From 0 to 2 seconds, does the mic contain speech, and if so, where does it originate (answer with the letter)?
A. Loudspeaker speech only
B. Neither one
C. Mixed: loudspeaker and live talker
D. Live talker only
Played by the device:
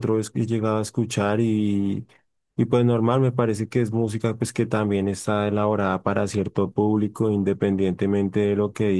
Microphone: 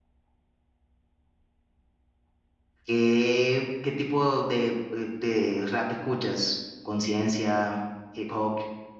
B